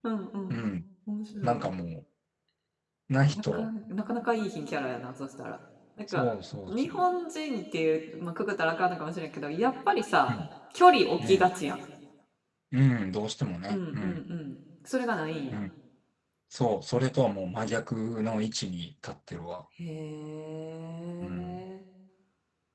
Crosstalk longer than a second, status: none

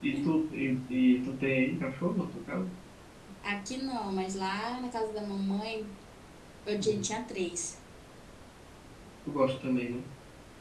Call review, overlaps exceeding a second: none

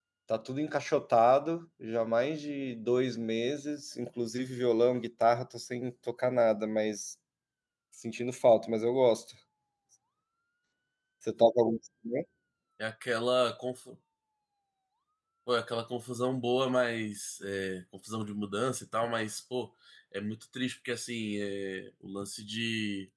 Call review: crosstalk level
none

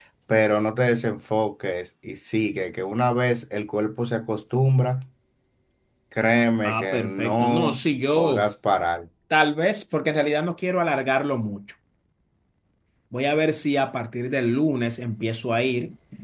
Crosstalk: present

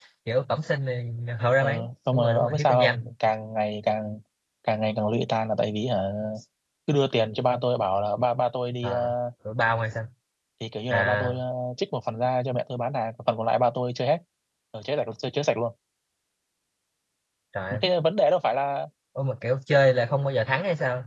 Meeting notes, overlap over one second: present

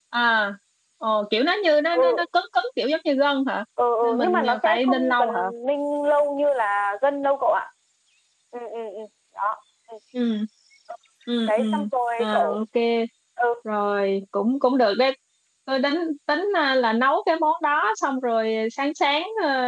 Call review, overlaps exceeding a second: present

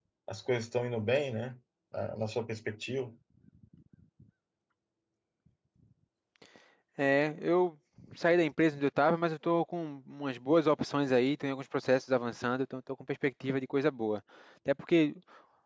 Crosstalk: none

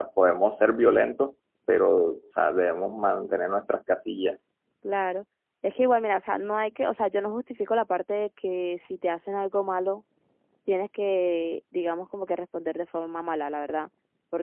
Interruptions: none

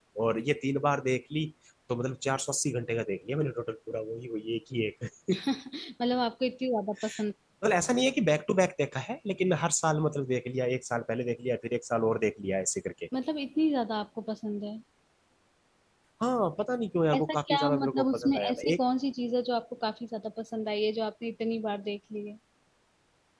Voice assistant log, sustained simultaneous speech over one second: present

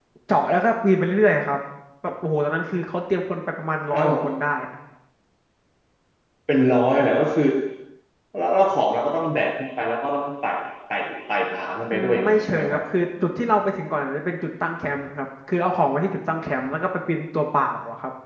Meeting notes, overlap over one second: present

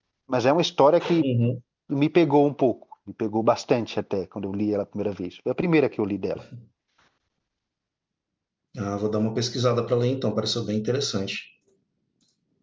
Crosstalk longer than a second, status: none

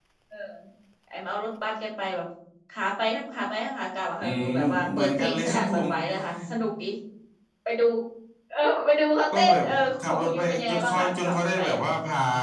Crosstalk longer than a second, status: present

